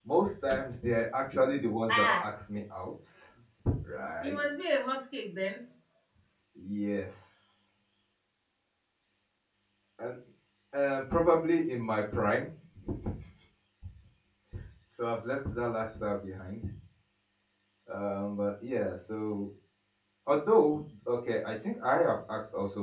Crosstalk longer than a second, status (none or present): none